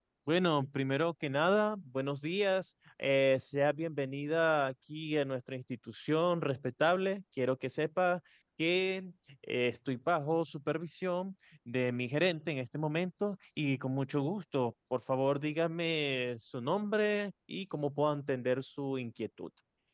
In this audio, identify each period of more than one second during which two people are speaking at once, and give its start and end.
none

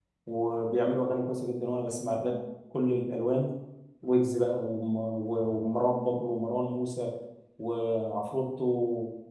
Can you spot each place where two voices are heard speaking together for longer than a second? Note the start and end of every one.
none

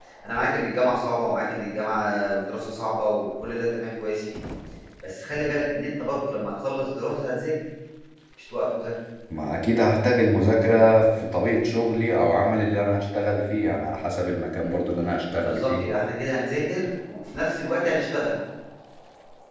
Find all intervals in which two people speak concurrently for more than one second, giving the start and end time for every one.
none

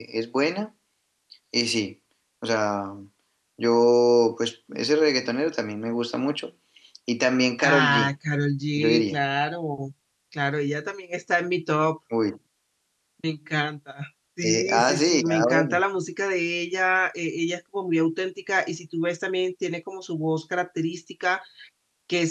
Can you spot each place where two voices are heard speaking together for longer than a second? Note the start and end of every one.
14.4-15.8

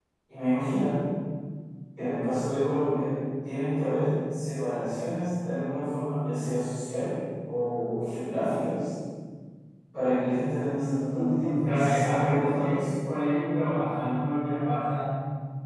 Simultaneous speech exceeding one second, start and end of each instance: 11.1-12.7

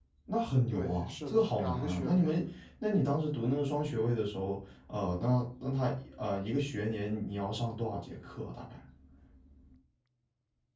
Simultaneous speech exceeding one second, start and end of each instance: 0.7-2.2

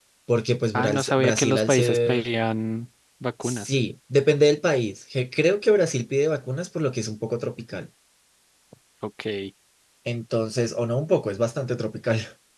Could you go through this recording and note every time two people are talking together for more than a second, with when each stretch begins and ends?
0.7-2.3

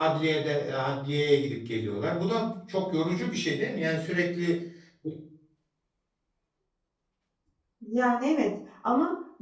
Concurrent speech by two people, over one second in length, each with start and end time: none

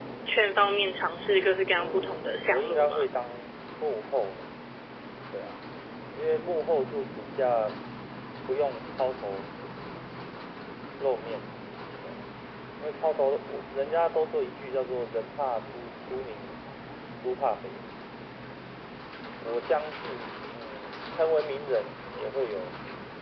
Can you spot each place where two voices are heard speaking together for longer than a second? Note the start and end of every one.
1.8-3.1

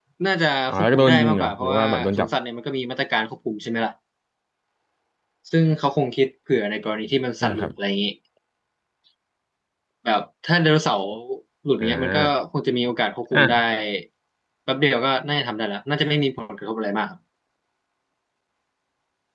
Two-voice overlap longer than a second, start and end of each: 0.7-2.3

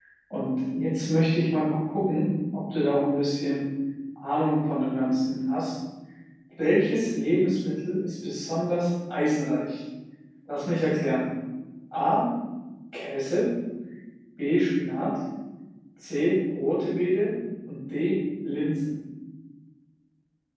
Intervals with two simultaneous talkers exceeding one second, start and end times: none

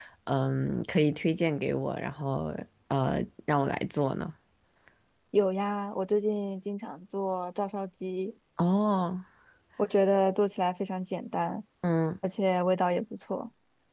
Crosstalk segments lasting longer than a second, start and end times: none

